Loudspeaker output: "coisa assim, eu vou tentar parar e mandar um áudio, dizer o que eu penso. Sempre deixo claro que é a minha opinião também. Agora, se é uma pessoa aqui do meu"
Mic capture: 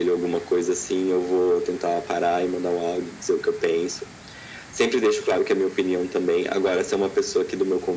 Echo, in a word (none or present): present